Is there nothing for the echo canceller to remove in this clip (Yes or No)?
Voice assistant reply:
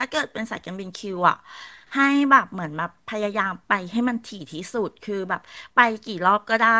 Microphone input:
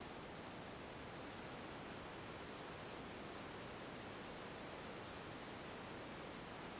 Yes